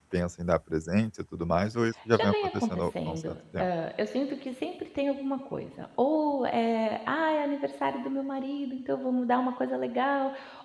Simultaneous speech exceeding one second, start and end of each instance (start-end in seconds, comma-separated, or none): 2.1-3.7